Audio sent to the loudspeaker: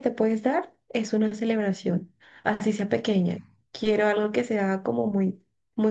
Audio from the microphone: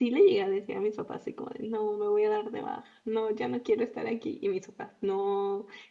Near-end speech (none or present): present